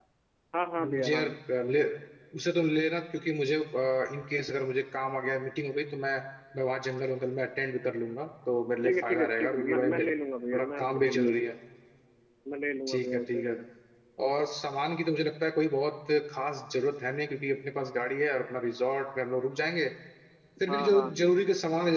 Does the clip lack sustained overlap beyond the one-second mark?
No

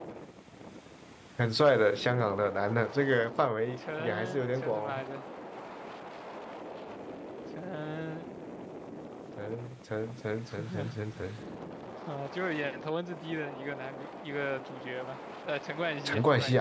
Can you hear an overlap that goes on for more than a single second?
Yes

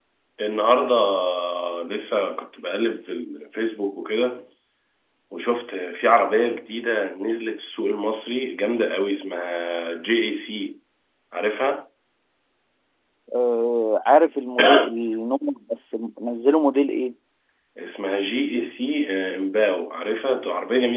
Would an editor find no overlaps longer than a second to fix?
Yes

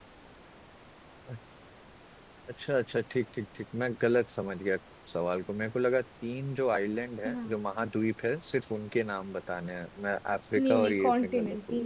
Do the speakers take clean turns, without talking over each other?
No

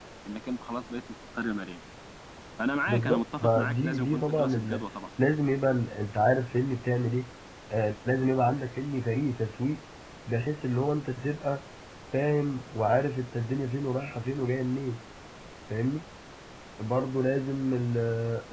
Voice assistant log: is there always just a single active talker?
No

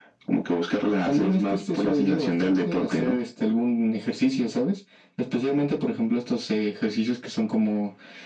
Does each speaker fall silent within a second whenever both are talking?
No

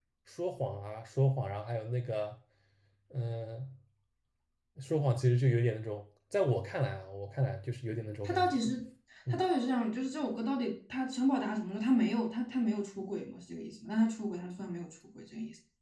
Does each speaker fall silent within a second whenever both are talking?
Yes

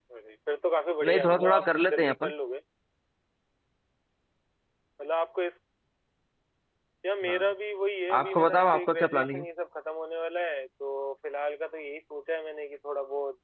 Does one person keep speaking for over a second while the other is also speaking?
Yes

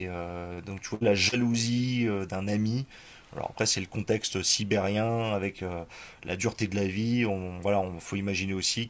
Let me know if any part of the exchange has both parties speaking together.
No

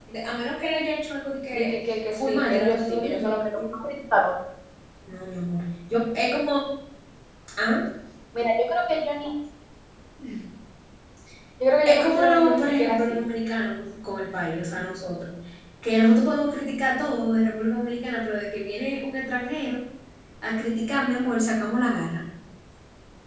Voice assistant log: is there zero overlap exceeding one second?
No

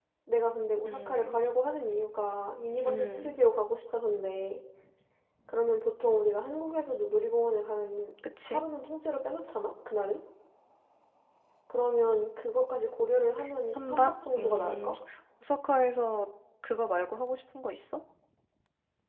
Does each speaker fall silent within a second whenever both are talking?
No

